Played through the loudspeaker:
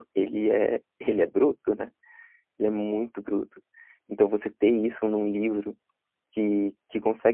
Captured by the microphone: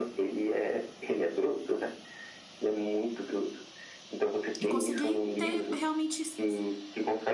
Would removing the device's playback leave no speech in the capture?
No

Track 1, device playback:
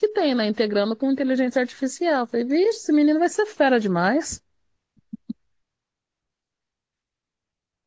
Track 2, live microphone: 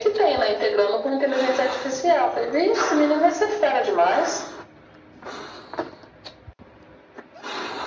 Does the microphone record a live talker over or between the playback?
No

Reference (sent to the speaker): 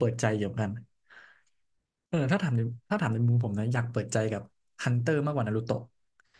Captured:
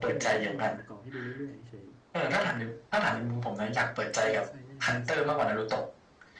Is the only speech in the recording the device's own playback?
No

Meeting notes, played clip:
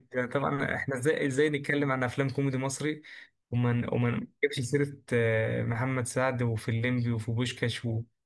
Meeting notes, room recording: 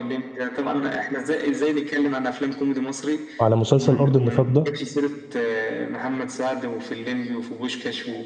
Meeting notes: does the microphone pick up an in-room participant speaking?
Yes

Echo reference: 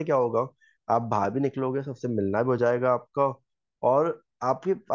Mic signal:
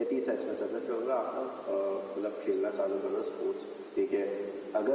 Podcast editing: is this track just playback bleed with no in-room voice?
No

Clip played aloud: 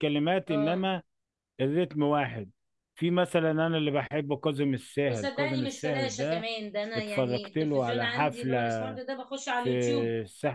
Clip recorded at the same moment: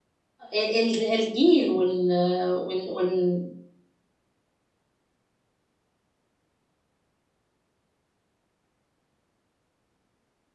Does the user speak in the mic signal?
Yes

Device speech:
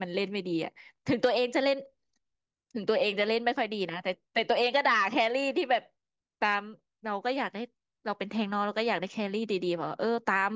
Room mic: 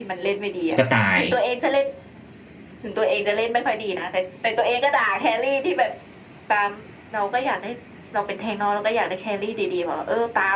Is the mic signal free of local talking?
No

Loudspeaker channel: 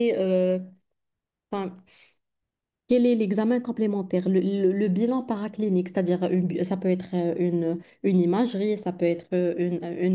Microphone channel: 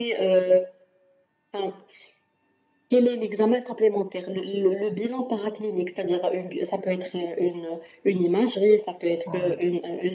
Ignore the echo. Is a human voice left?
Yes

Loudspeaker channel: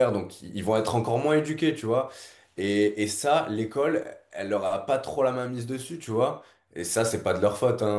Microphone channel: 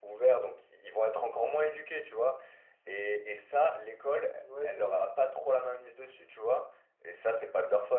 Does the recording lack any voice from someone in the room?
No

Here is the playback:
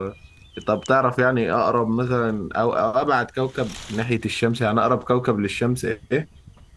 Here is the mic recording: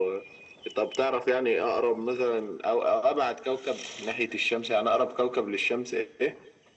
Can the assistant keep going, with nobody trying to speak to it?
Yes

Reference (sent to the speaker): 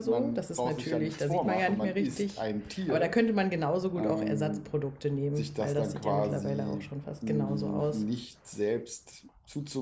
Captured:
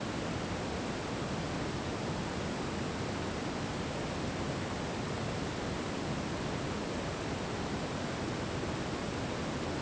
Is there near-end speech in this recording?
No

